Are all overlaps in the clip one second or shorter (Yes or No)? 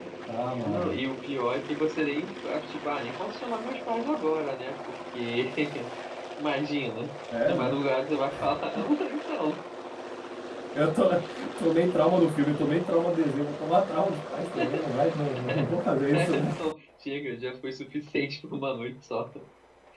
Yes